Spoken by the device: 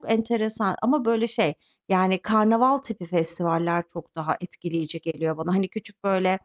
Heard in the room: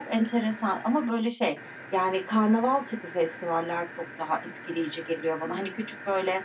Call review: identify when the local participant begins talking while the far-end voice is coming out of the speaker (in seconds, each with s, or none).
none